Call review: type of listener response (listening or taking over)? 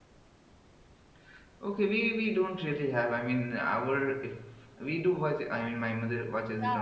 taking over